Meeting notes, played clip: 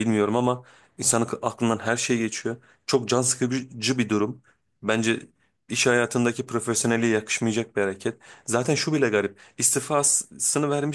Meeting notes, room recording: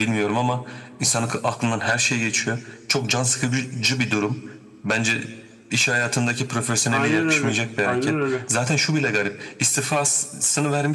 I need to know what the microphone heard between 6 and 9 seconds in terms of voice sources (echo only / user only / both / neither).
both